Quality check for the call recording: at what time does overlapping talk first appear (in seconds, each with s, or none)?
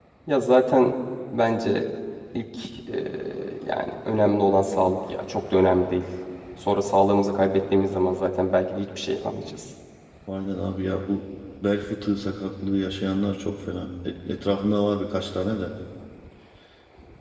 none